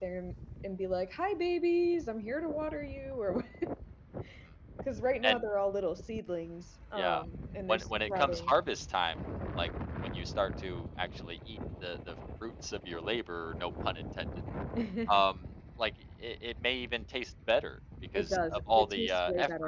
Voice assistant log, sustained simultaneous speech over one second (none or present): present